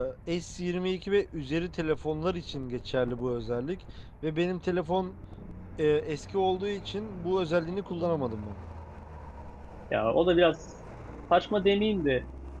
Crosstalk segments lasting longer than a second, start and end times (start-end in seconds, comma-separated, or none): none